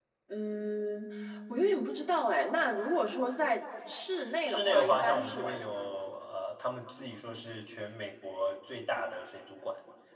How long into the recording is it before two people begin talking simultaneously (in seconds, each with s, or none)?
4.4 s